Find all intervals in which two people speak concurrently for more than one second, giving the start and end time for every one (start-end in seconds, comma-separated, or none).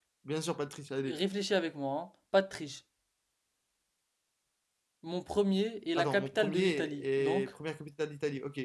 6.0-7.5